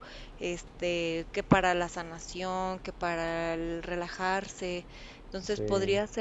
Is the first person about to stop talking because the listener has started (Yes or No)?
No